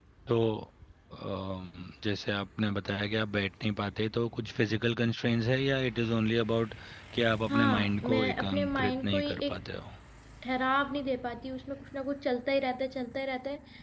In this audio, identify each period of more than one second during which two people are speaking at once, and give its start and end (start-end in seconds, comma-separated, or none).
7.5-9.6